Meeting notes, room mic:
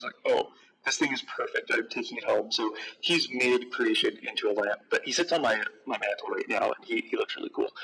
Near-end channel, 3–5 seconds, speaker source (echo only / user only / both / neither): echo only